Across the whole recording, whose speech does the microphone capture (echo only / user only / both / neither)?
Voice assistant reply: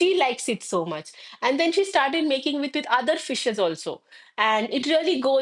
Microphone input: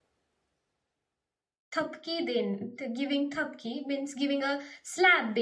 user only